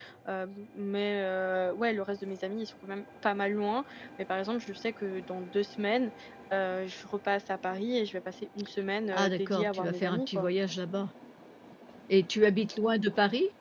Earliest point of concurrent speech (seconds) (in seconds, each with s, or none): 9.1 s